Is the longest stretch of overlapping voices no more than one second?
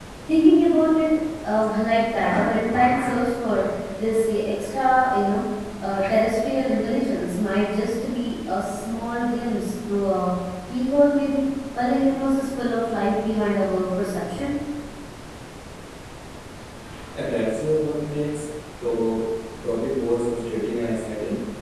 Yes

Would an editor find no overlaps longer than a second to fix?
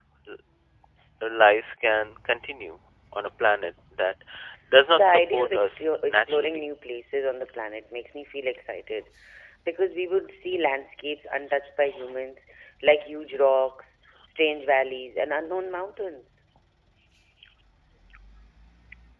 No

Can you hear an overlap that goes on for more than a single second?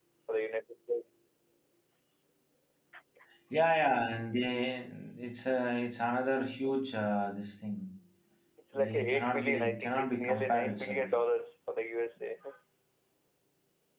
Yes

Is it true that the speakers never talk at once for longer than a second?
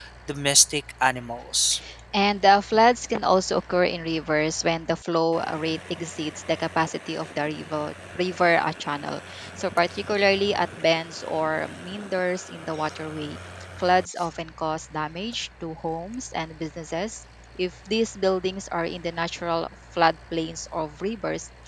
Yes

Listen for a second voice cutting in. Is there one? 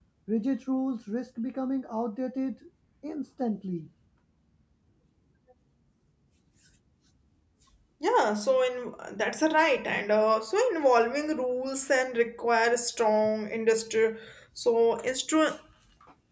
No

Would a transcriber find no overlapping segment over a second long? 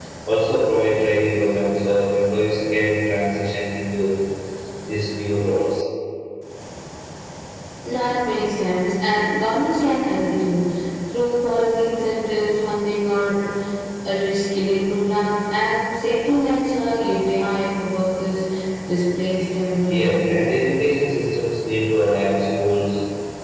Yes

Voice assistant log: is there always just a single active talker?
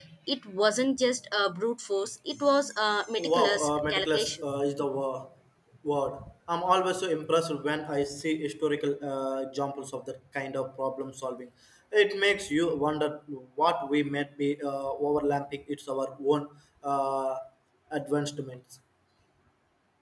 No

